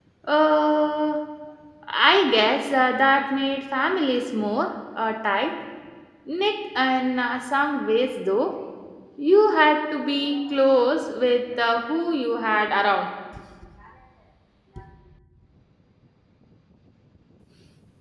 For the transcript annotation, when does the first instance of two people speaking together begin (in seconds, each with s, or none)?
none